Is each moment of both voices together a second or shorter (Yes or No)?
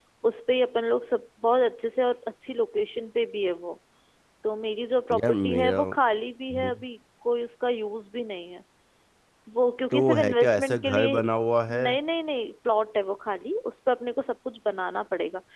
No